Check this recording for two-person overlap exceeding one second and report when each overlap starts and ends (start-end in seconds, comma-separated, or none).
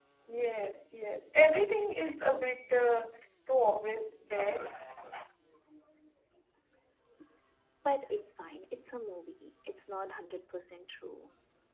none